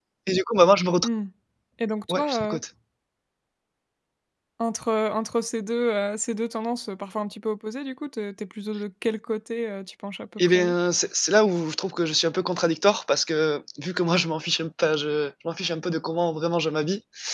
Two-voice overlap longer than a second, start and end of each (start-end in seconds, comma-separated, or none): none